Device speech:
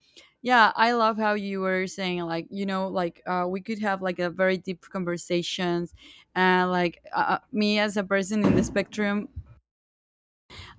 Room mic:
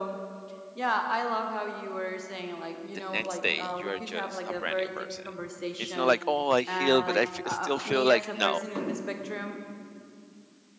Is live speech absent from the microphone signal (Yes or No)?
No